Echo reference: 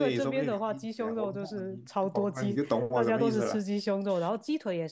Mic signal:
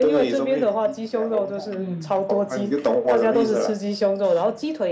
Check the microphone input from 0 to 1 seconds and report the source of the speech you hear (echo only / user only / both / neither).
echo only